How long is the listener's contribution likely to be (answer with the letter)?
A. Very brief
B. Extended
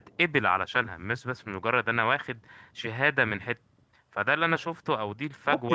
B